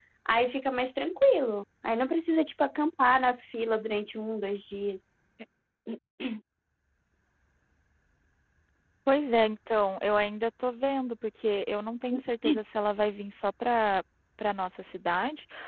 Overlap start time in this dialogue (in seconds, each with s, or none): none